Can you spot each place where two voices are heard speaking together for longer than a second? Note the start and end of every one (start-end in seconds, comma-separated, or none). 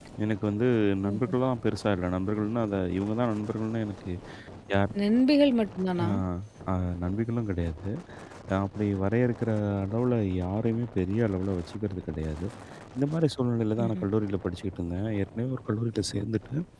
none